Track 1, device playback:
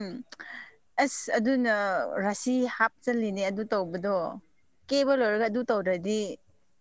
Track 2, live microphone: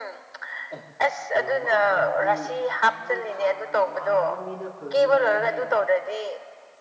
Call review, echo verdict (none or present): present